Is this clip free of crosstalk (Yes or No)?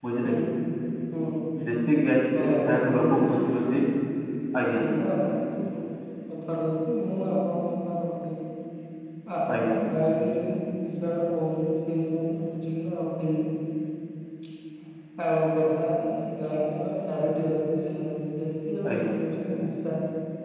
No